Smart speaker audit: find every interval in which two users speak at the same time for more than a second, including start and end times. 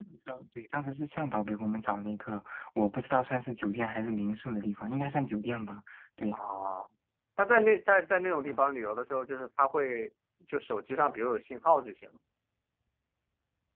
none

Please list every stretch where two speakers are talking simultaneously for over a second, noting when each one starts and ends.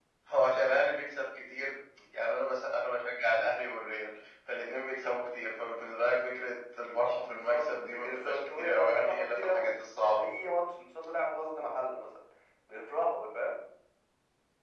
7.2-9.7

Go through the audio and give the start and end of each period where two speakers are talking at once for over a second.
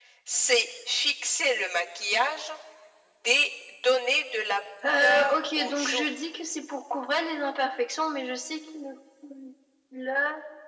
4.8-6.1

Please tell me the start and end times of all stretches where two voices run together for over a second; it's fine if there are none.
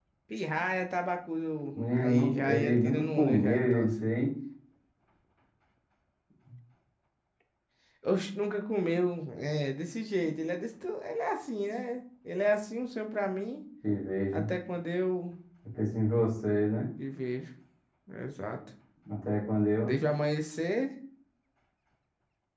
1.7-3.9

